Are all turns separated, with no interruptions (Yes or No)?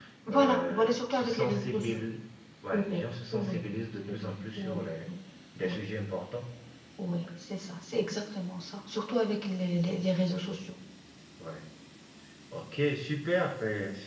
No